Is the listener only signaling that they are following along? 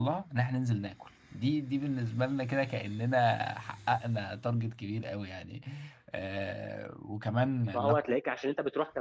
No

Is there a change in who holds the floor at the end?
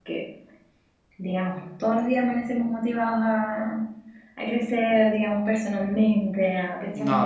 No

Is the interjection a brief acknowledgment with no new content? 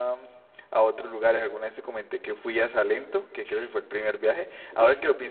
Yes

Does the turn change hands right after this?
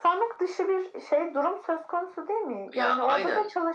No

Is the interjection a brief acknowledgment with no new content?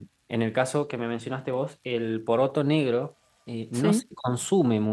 Yes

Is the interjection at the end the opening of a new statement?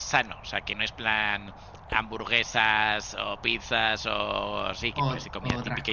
Yes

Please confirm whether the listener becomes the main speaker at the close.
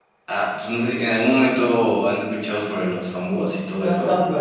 Yes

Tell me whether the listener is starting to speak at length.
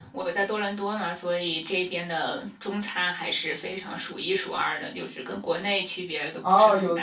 Yes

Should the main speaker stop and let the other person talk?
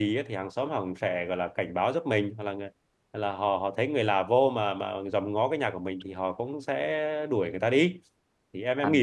Yes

